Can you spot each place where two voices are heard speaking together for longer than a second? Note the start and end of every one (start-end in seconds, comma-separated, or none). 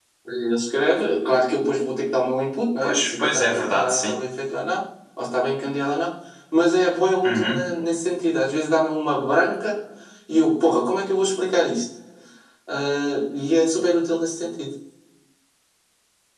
2.8-4.1